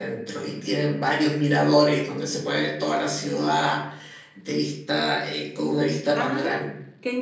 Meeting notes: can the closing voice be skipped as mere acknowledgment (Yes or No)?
No